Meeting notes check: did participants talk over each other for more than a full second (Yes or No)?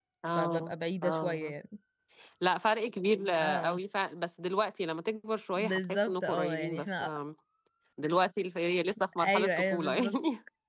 Yes